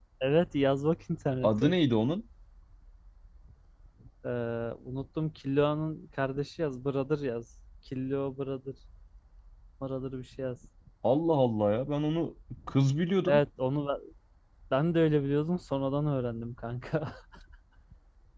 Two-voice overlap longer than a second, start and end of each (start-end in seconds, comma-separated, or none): none